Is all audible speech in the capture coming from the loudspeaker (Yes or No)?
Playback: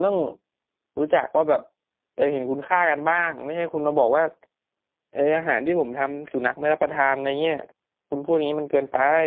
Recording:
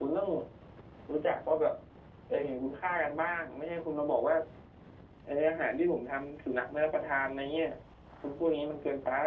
Yes